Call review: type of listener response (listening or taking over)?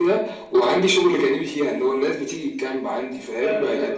listening